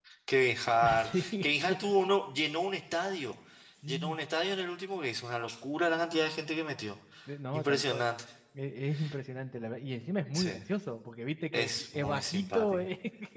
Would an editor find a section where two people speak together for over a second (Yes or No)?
Yes